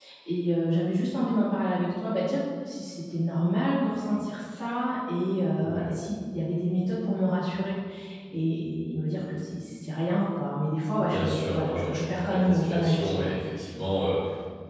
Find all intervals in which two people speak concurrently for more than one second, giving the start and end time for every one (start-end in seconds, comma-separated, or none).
11.1-13.4